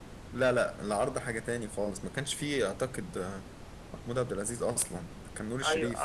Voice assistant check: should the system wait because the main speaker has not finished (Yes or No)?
No